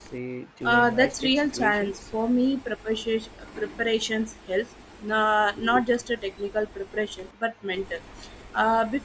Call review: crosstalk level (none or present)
present